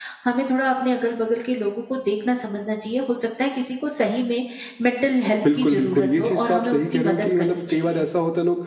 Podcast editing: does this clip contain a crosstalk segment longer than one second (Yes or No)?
Yes